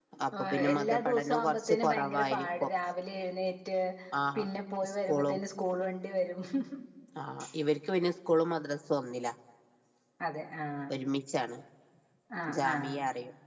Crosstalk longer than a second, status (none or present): present